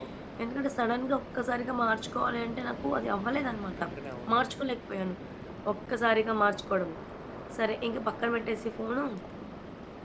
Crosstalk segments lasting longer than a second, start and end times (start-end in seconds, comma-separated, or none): none